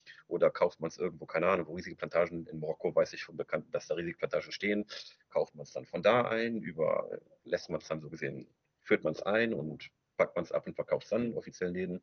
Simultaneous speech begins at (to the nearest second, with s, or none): none